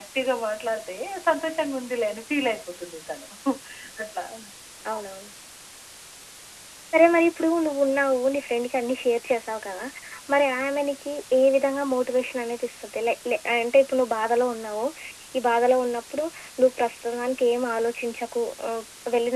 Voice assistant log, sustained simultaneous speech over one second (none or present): none